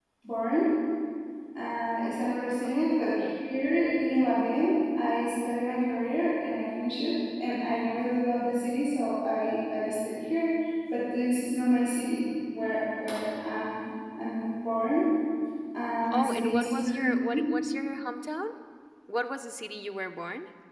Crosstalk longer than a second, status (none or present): present